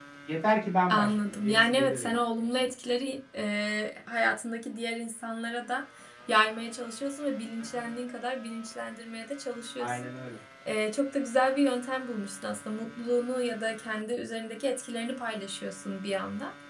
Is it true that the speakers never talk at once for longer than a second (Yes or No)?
No